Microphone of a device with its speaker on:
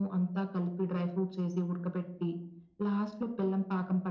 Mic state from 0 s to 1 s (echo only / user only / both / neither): echo only